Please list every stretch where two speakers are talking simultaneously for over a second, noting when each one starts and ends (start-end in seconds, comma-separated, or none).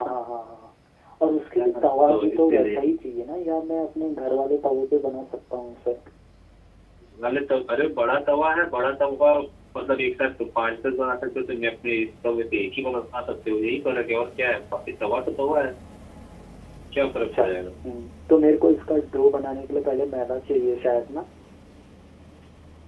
1.6-2.8